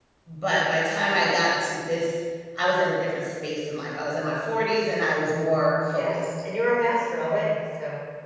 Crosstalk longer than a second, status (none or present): none